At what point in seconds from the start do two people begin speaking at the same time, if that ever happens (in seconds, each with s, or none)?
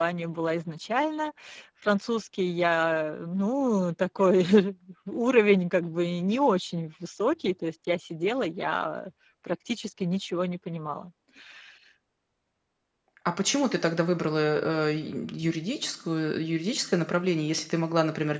none